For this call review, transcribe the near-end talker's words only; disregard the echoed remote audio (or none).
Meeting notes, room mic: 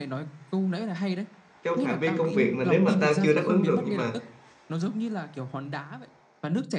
trong phạm vi công việc mà nếu mà tao chưa đáp ứng được nhưng mà